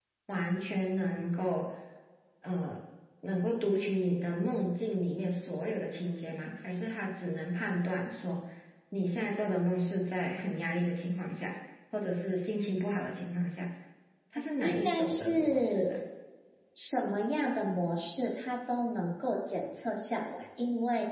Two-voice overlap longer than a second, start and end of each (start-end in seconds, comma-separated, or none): 14.6-16.0